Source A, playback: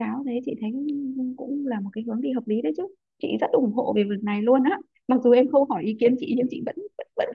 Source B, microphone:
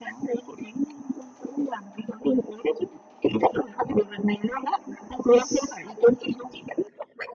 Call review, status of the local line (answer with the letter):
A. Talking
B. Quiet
B